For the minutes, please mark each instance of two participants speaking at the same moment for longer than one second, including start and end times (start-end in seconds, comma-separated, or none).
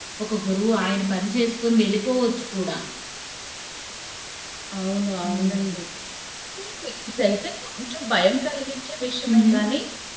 none